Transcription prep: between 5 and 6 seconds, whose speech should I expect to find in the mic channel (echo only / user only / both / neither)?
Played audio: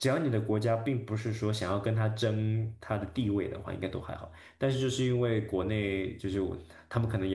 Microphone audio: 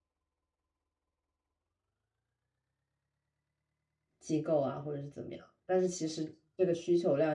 user only